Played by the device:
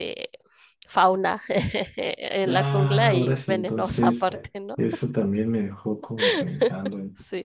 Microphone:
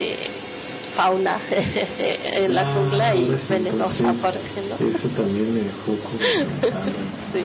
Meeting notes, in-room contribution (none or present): none